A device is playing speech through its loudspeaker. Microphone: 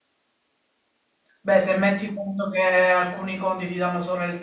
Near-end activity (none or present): present